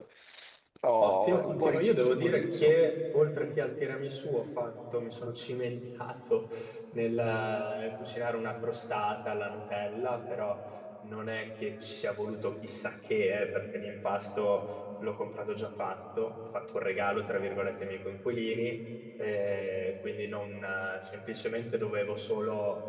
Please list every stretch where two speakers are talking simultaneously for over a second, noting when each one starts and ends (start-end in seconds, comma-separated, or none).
1.0-2.7